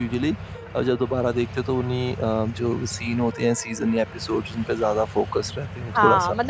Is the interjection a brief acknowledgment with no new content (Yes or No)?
No